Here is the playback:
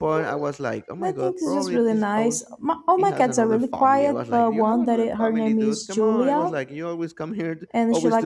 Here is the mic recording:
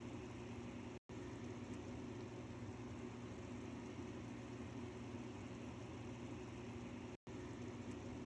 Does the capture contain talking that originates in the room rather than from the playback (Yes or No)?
No